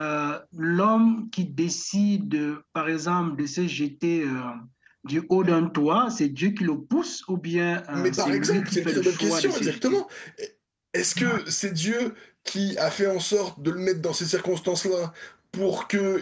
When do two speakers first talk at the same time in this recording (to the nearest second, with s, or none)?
8 s